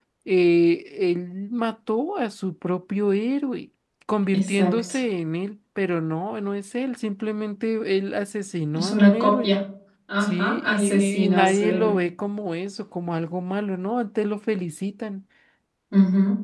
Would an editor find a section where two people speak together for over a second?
Yes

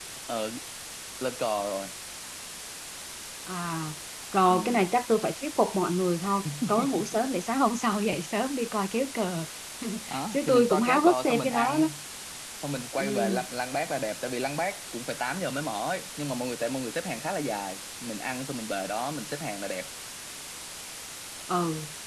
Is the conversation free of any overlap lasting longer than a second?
No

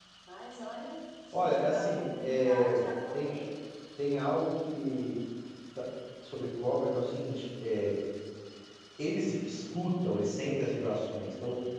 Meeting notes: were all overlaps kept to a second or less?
No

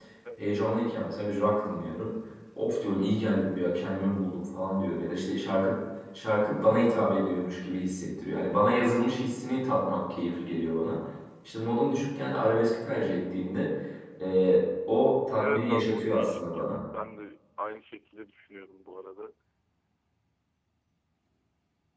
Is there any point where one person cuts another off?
Yes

